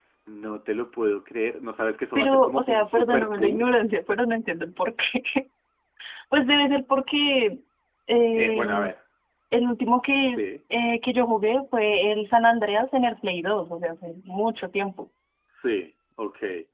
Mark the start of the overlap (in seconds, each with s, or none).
2.1 s